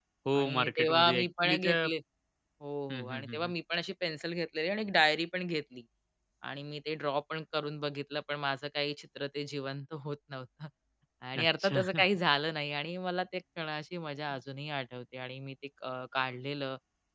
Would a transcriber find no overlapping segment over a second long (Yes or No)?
No